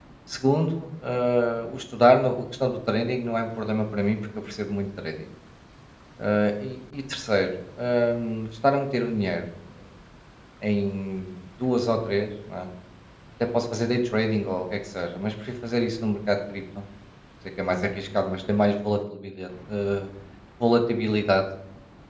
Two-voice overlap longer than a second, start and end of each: none

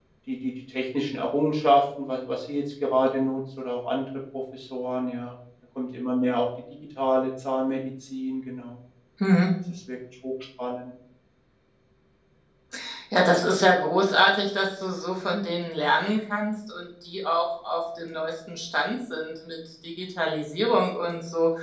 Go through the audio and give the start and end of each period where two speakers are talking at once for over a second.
none

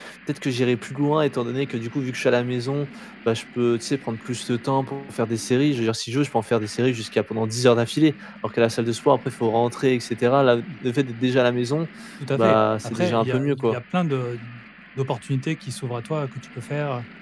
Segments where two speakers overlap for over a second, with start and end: 12.4-13.8

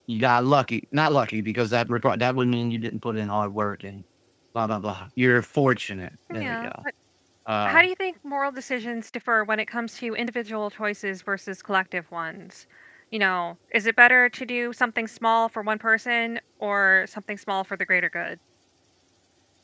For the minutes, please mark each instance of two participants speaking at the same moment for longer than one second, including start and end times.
none

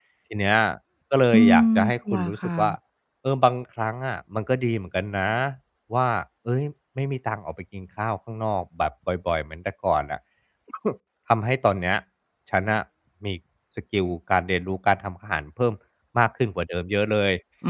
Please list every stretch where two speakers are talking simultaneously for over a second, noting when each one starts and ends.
1.3-2.7

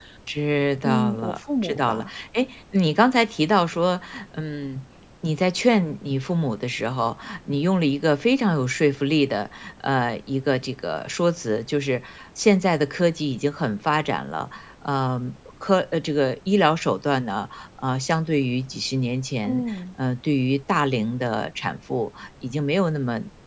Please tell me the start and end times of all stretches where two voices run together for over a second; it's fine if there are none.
0.8-2.1

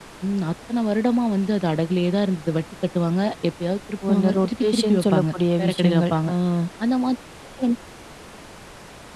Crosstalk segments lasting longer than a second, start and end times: 4.0-6.1

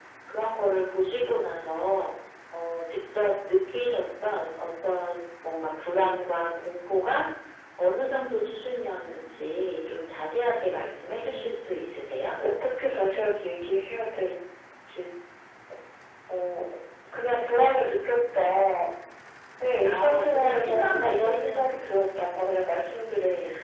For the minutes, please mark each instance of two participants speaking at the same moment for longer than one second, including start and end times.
19.8-21.7

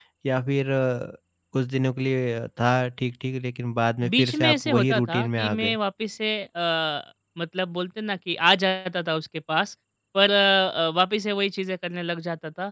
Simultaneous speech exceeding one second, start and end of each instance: 4.2-5.8

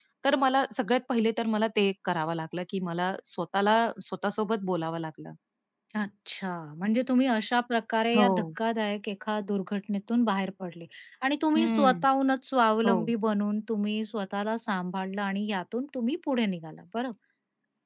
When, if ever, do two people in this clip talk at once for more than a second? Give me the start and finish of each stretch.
none

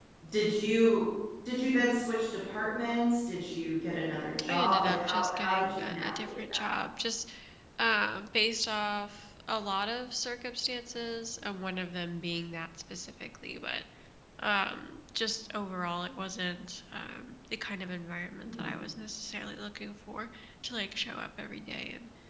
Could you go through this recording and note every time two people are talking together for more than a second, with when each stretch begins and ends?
4.5-6.7

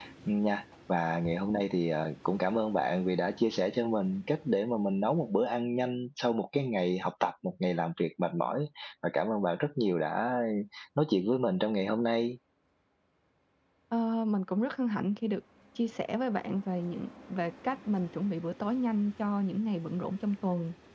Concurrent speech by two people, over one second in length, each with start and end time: none

